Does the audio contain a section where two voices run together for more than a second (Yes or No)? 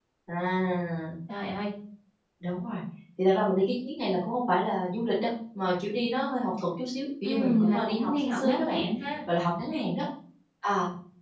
Yes